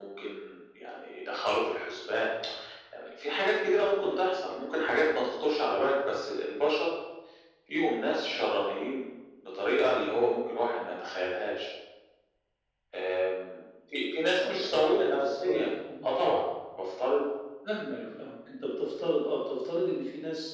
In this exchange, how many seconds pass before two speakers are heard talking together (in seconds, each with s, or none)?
14.4 s